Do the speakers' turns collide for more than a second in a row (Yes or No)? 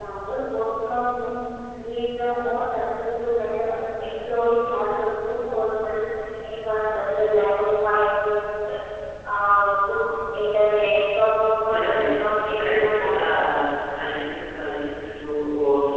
Yes